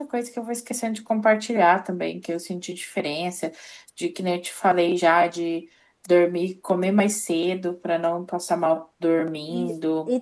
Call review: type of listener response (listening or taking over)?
taking over